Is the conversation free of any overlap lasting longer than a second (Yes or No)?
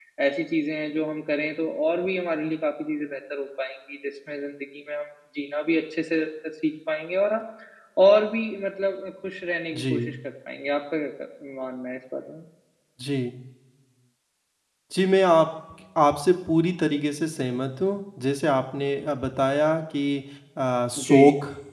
Yes